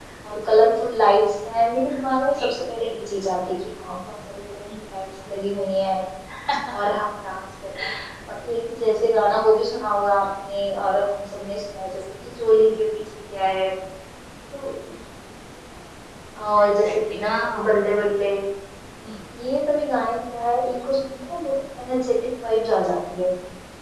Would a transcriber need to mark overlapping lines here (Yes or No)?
Yes